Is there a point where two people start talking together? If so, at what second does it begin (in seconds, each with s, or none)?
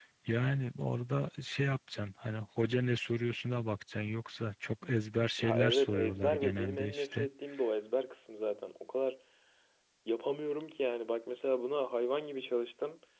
5.4 s